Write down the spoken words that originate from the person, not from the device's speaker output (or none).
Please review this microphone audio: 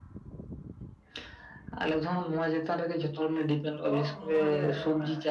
ᱡᱚᱛᱚ ᱦᱚᱲᱟᱜ ᱥᱩᱢᱩᱝ ᱨᱮᱜᱮ ᱢᱟᱱᱮᱼᱼ